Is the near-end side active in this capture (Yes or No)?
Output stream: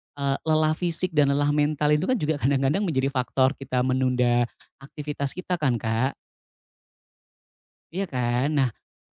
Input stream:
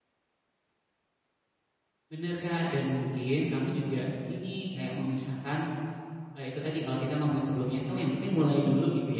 Yes